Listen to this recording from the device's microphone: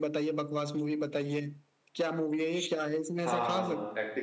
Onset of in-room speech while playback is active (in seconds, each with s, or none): 3.2 s